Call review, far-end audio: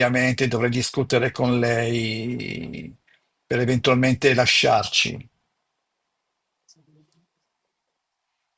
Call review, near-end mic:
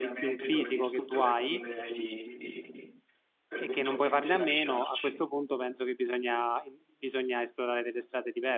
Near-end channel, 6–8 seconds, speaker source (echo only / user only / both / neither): user only